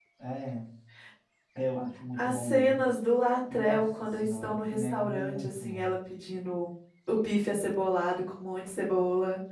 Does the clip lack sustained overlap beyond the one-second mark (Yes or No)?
No